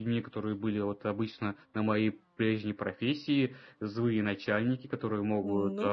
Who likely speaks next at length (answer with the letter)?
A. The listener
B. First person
B